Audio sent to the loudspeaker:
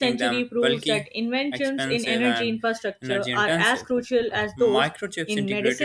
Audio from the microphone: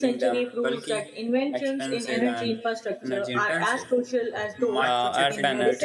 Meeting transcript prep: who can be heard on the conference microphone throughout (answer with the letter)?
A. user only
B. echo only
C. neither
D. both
D